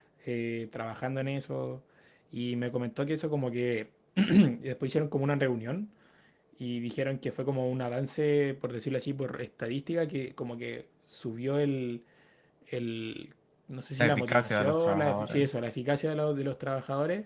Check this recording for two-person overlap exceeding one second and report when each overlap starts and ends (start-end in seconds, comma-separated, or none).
14.0-15.5